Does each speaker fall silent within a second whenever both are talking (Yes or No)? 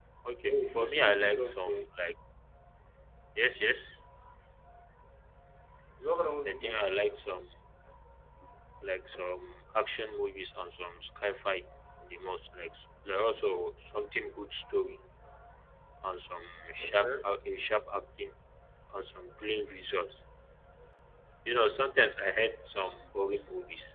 No